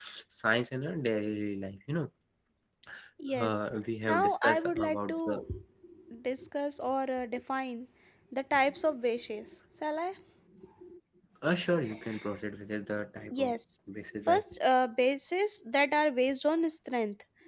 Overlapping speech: Yes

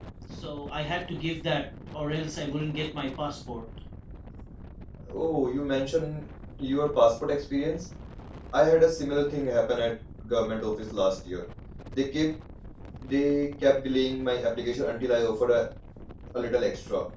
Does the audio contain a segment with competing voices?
No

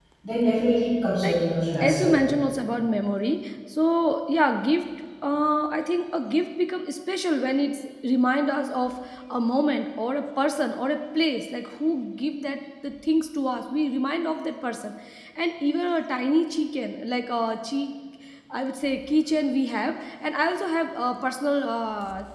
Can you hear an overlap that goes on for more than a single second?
No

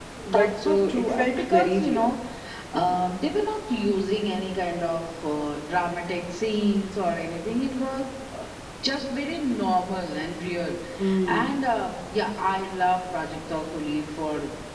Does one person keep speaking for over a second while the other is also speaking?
Yes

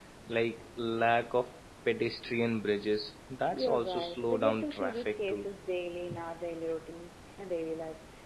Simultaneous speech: Yes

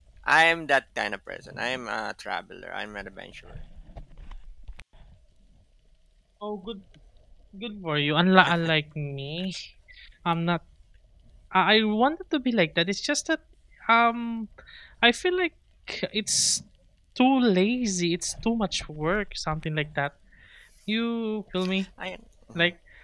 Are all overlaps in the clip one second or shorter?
Yes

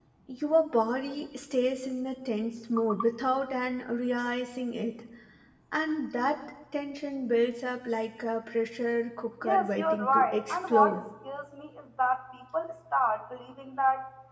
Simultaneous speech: Yes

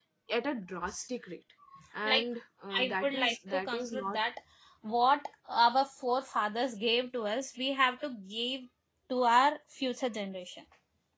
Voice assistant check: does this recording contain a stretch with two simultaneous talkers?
Yes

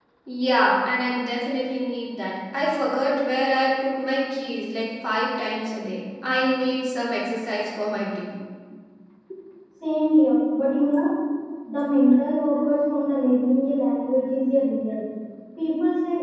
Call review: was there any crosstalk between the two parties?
No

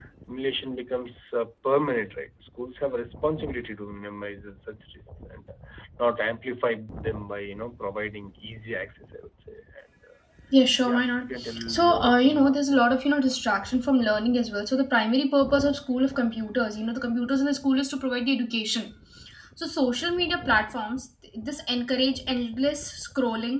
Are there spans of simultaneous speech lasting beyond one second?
Yes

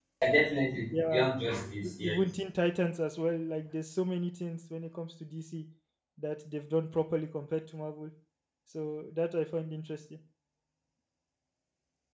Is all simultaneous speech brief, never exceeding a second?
Yes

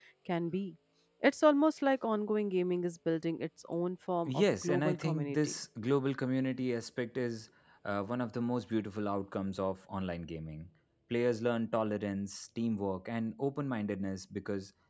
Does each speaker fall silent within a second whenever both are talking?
No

